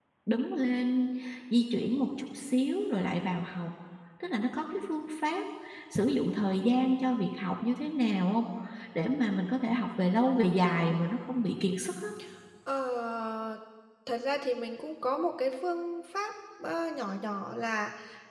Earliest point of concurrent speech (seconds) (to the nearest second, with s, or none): none